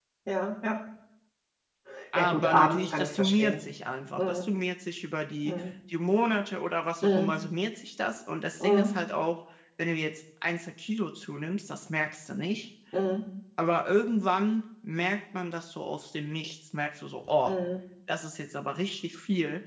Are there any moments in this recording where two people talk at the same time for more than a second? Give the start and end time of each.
2.1-3.5

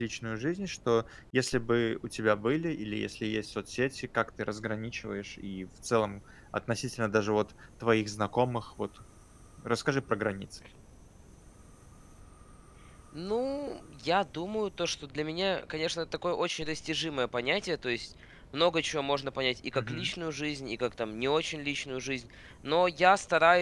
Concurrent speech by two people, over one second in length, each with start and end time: none

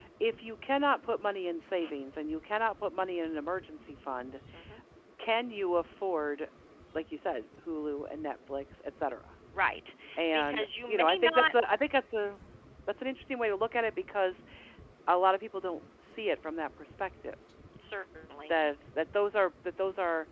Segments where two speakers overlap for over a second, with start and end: 10.3-11.5

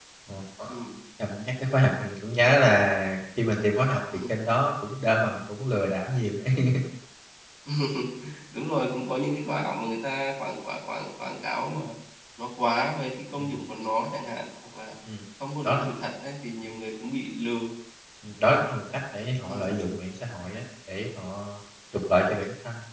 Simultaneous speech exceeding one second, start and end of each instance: none

